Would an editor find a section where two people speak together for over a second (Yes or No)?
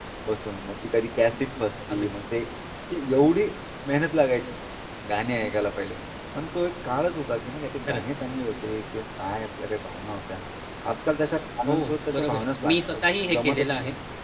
Yes